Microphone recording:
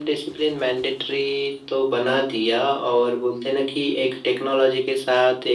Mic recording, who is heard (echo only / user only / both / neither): echo only